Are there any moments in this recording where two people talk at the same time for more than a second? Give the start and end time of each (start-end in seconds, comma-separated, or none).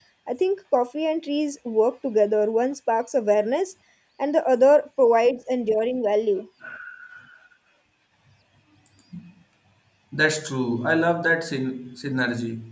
none